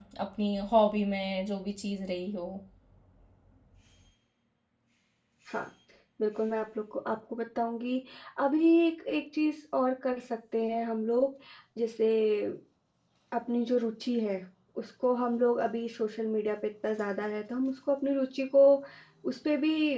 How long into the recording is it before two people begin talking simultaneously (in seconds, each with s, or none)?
none